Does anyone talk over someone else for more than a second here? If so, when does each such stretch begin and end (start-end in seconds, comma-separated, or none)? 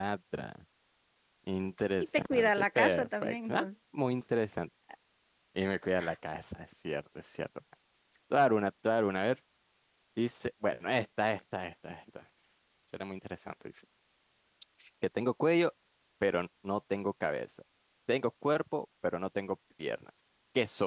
2.1-3.7